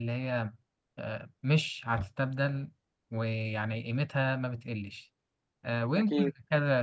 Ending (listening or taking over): listening